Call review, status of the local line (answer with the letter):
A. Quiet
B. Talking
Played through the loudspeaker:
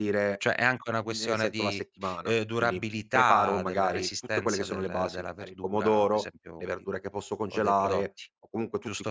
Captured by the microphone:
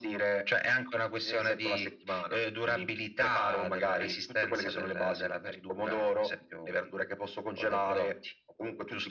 A